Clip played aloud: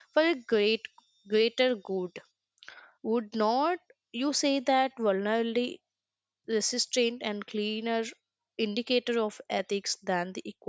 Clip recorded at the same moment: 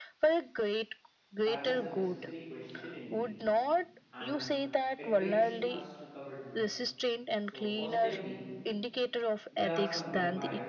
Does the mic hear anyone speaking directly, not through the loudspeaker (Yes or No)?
Yes